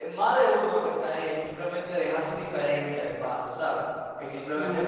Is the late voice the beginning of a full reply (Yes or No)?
No